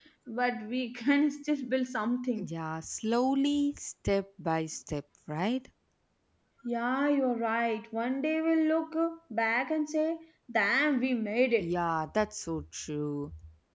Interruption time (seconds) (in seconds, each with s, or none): none